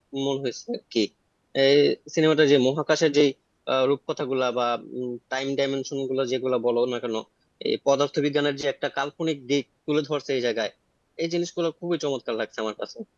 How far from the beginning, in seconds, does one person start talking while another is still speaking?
none

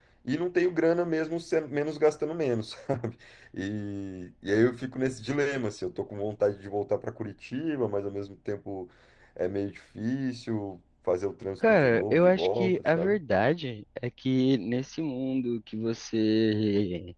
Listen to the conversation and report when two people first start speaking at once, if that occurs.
11.6 s

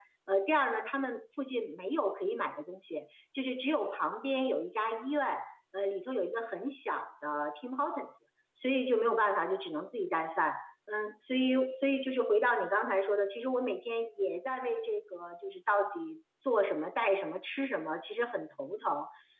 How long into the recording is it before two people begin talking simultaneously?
none

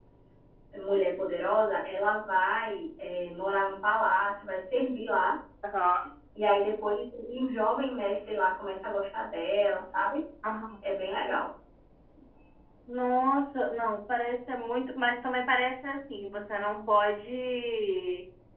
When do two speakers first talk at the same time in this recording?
none

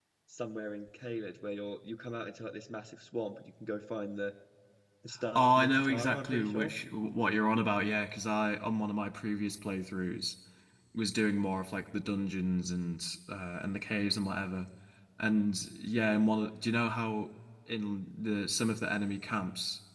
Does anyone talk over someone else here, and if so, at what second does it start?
5.3 s

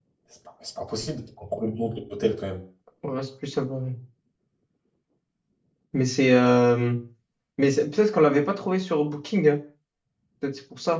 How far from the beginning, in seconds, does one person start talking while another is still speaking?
none

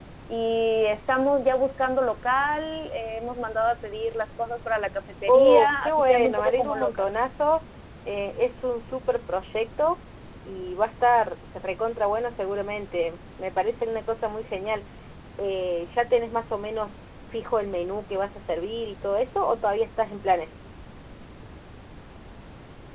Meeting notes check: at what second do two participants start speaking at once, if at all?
5.3 s

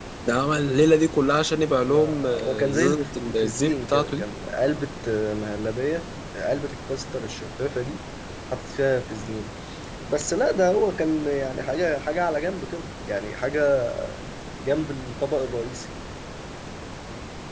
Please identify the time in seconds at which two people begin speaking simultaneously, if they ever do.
1.8 s

